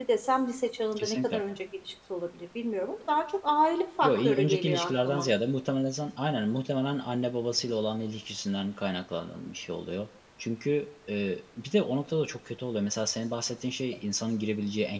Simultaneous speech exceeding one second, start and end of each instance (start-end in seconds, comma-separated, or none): 4.0-5.3